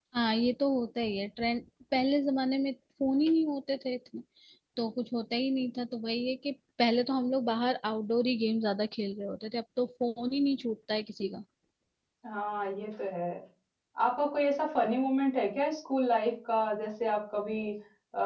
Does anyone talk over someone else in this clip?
No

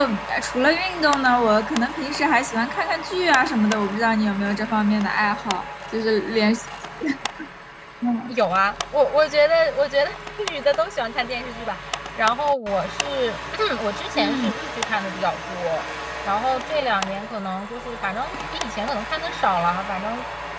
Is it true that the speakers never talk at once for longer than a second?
Yes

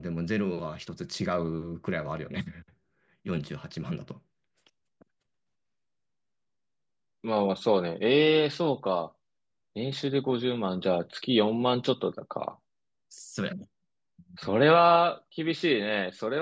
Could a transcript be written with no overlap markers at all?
Yes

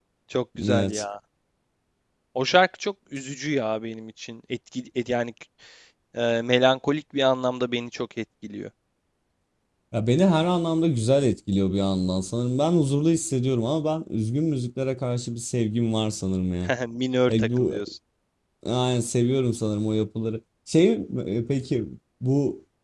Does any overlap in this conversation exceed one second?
No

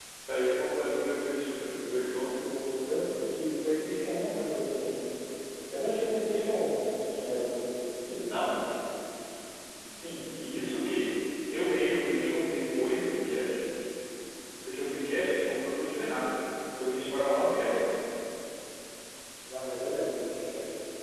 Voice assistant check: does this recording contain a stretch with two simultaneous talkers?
No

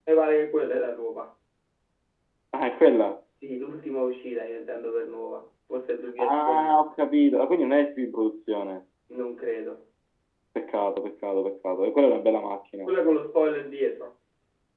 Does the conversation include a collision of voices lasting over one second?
No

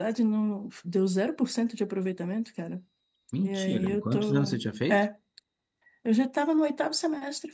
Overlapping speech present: Yes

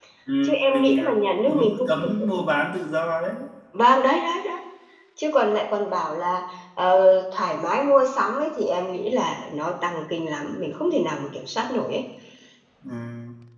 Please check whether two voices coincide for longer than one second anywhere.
Yes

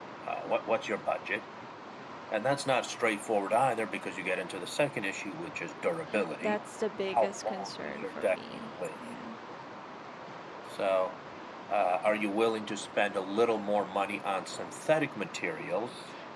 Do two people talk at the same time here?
Yes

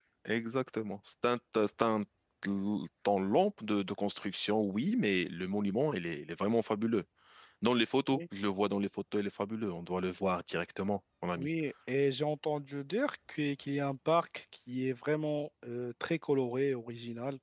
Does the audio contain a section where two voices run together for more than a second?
No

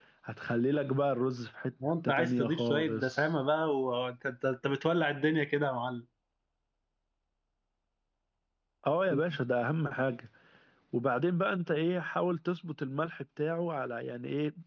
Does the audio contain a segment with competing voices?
Yes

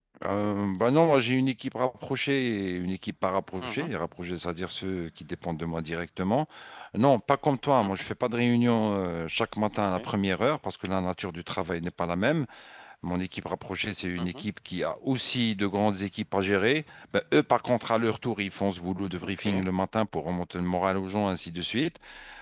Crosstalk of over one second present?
No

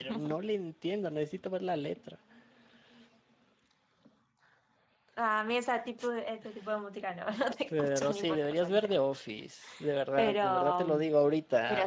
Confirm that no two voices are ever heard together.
No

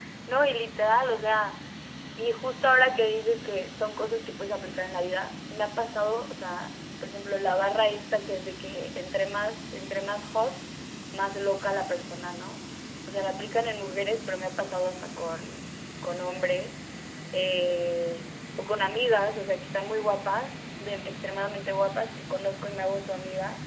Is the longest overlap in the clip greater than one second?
No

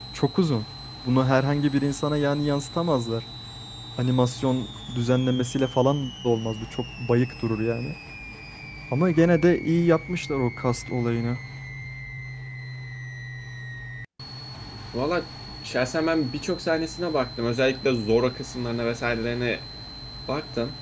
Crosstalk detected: No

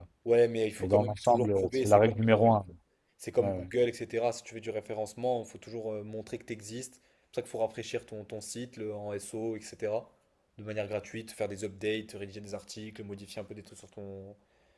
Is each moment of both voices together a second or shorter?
No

